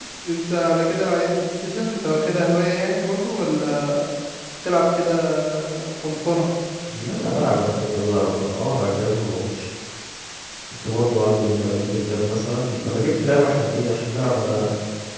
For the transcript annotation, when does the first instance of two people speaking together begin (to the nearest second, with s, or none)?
none